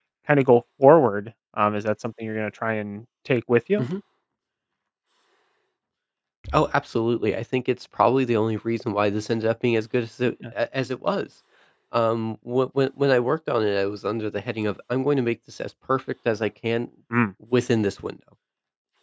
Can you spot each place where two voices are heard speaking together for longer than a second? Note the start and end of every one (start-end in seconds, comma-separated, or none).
none